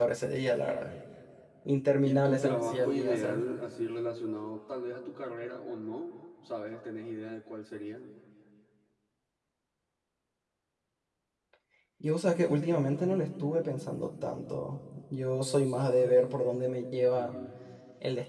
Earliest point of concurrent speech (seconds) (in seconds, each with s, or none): 2.0 s